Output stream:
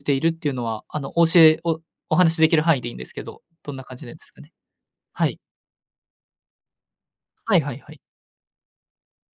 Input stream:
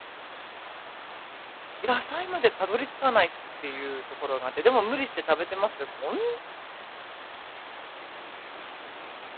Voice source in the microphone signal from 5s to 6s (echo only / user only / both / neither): user only